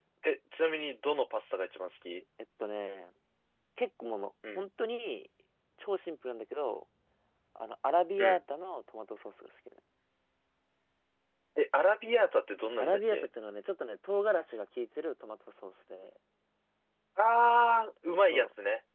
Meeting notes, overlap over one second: none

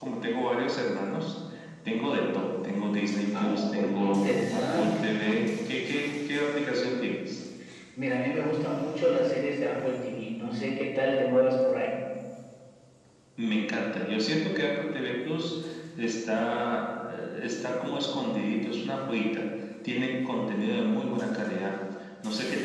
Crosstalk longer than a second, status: present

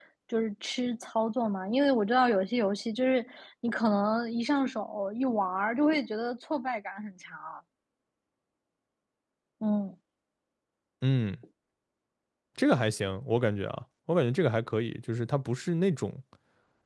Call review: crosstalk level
none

